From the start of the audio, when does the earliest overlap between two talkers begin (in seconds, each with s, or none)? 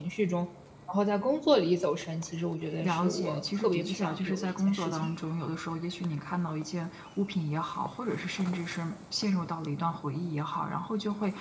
2.8 s